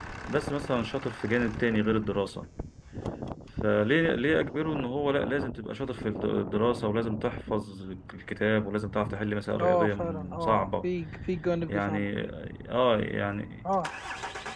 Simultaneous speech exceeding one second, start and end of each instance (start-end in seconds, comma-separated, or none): 9.6-10.9